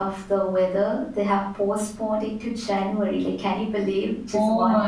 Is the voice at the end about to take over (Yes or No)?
Yes